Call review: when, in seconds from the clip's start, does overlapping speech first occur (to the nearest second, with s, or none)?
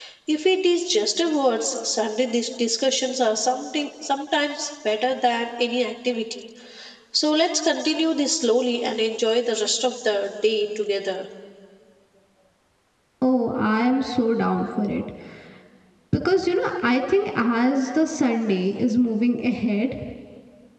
none